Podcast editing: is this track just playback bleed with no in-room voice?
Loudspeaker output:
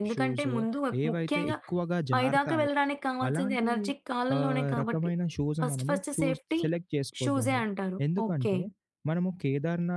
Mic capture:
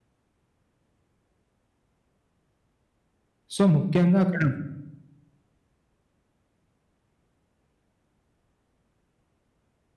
No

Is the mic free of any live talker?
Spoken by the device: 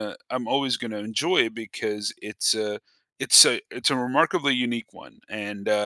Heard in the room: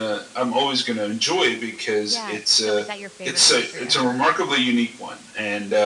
No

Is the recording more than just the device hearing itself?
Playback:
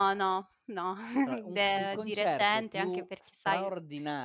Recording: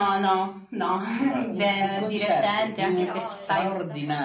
Yes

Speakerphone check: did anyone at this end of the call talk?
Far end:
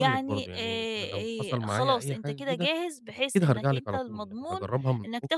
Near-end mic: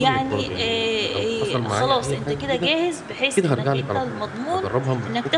No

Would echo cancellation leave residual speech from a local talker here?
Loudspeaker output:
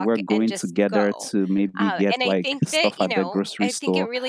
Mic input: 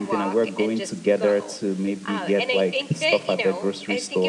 No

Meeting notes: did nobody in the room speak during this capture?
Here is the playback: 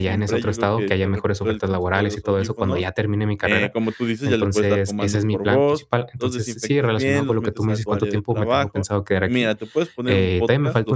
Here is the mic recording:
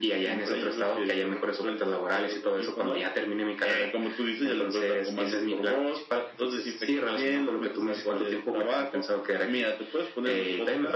Yes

